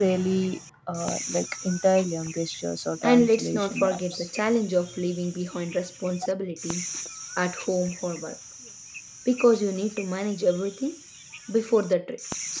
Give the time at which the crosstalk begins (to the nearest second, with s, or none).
3 s